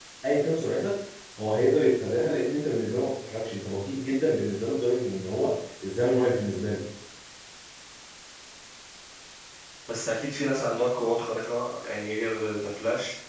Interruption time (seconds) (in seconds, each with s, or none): none